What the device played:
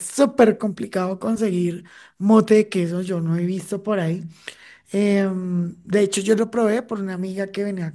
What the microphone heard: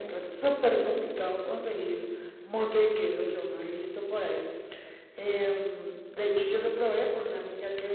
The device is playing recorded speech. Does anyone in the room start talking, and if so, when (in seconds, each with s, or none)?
none